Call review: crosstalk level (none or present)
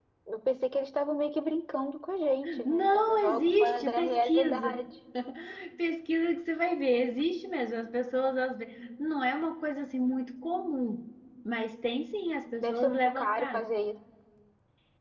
present